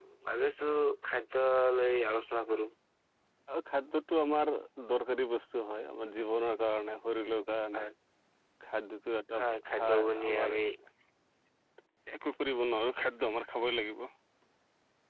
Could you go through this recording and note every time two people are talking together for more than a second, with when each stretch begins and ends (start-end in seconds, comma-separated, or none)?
9.4-10.6